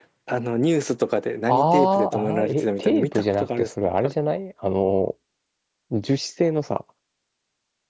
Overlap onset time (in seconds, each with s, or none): 1.5 s